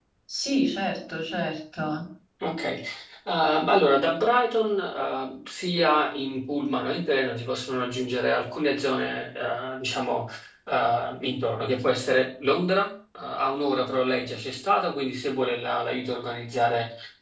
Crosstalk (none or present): none